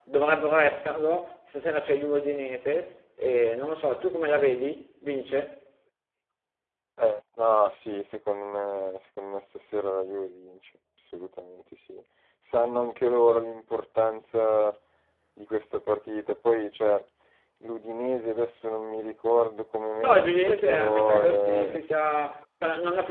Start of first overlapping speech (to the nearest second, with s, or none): 20 s